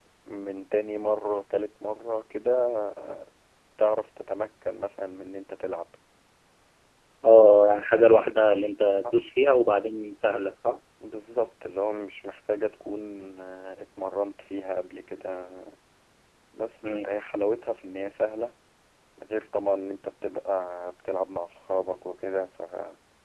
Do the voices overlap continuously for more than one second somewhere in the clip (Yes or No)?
No